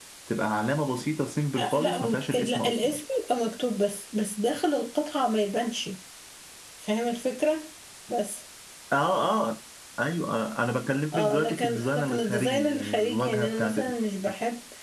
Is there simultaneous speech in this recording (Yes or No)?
Yes